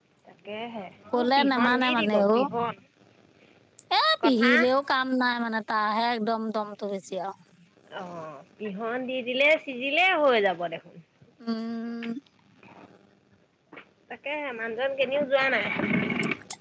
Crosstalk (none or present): present